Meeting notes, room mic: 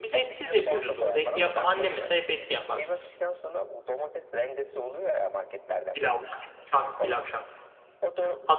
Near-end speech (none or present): present